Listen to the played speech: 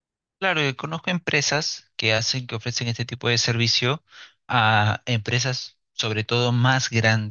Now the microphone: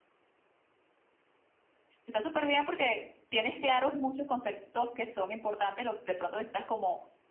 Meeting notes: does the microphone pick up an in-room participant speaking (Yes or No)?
Yes